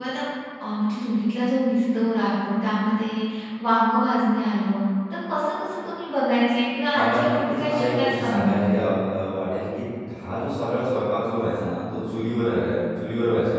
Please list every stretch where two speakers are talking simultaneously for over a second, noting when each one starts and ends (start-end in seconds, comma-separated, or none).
6.9-8.5